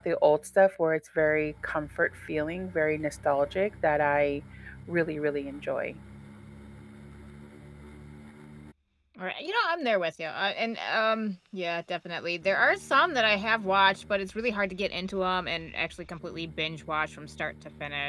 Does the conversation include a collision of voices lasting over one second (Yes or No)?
No